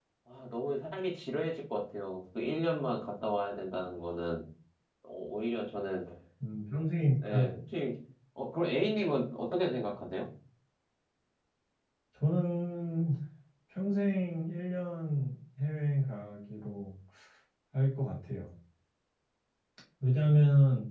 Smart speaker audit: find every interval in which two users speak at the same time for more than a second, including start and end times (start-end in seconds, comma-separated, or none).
none